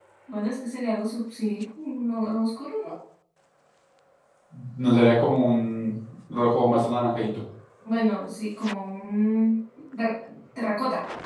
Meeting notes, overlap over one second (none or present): none